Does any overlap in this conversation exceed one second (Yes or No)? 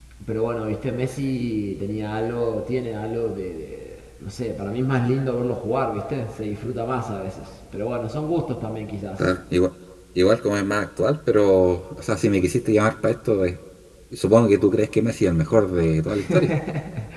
No